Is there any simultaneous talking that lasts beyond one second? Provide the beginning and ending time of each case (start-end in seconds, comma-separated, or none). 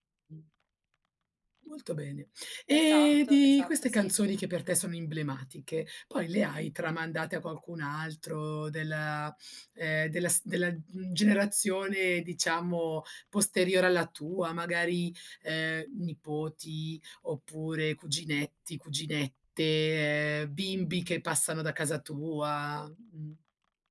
2.7-4.2